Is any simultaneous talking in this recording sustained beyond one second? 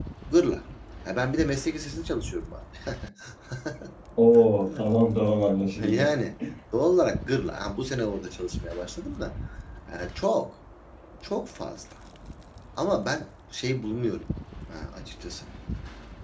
No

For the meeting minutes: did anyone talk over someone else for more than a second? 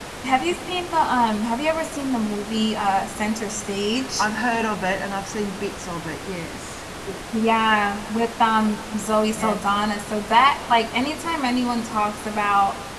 No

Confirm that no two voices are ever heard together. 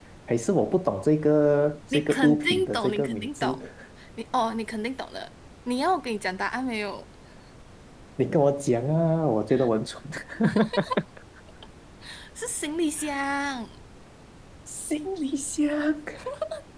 No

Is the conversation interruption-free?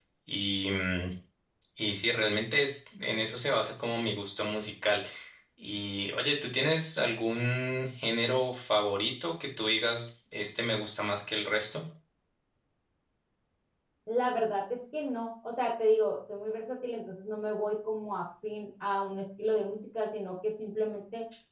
Yes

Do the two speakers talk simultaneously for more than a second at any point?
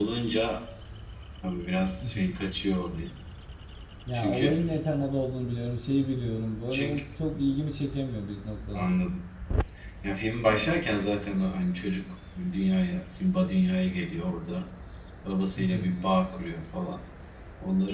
No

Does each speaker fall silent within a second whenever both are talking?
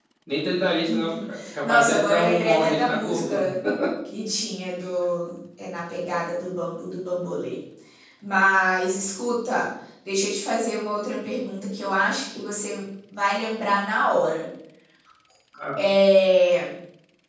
No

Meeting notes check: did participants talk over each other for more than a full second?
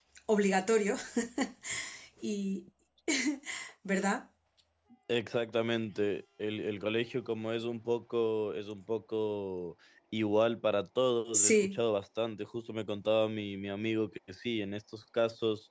No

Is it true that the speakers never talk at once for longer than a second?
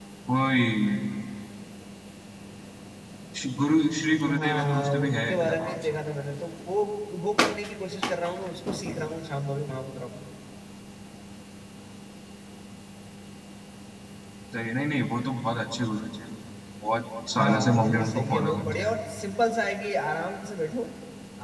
No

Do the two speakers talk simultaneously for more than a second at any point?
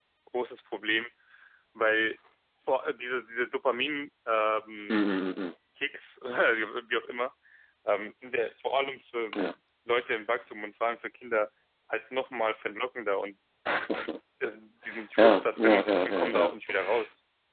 Yes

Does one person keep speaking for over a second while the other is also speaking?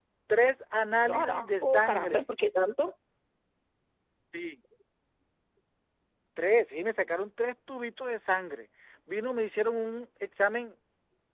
Yes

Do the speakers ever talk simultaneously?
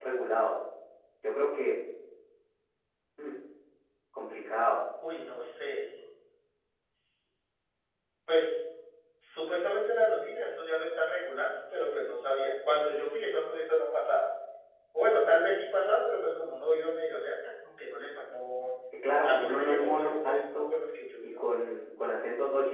Yes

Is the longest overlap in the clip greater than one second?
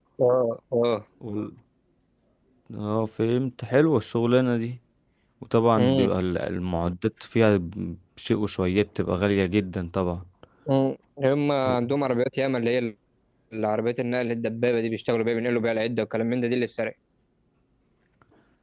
No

